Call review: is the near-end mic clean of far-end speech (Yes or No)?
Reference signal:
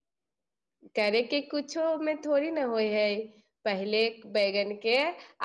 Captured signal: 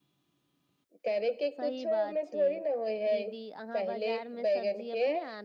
No